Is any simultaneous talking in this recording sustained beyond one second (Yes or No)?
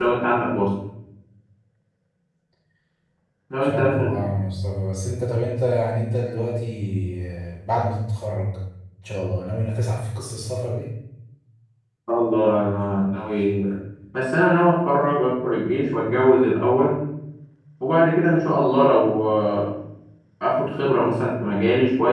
No